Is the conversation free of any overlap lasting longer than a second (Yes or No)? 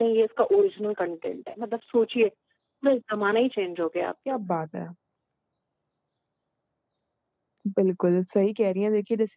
Yes